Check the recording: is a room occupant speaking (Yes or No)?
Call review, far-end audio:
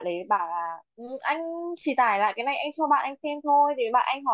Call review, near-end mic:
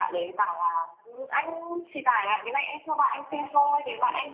Yes